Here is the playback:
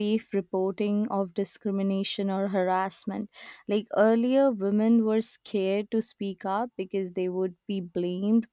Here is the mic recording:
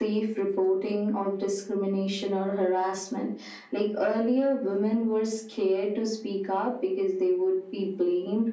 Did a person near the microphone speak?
No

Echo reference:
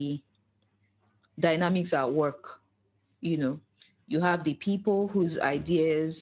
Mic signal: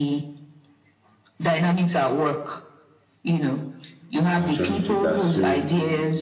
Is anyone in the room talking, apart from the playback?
Yes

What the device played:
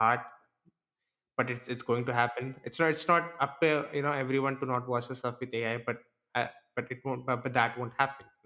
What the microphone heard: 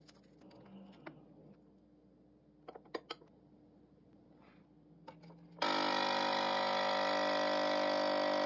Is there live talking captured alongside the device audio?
No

